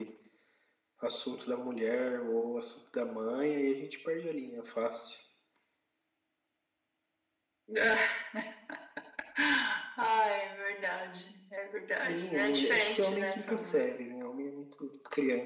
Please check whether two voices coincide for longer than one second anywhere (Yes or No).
Yes